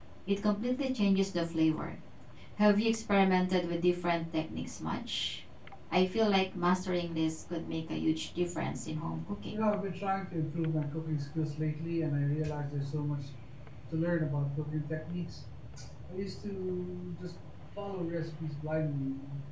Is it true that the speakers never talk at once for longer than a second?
Yes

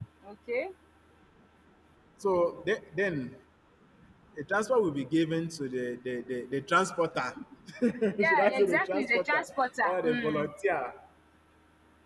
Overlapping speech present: Yes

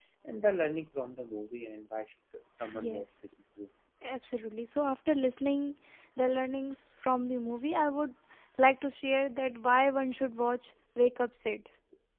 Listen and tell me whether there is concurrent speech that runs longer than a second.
No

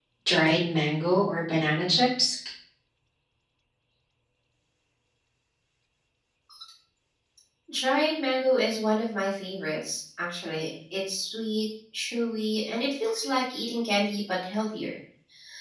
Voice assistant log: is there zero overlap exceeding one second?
Yes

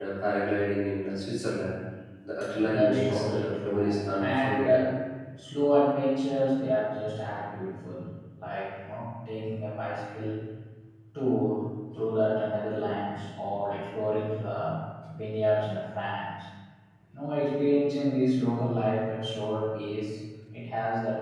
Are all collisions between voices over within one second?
No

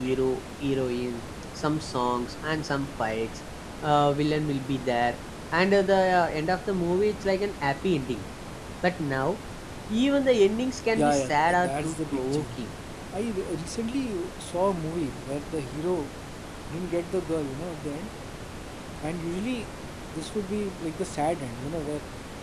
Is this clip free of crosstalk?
No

